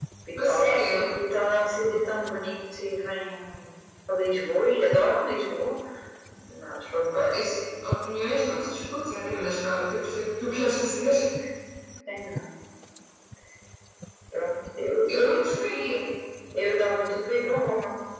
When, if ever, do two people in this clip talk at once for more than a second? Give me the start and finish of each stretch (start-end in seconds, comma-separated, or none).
none